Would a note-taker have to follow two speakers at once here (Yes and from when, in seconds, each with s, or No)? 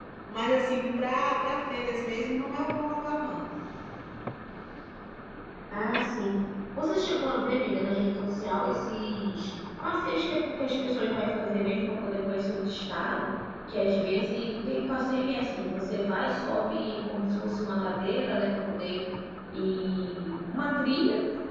No